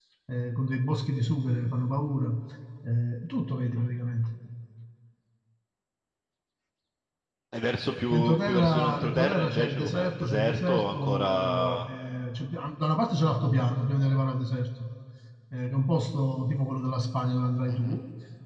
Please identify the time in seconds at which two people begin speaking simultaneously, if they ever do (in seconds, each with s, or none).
8.1 s